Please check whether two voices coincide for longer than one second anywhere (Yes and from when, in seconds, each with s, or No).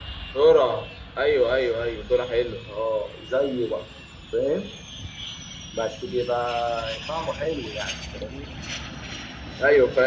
No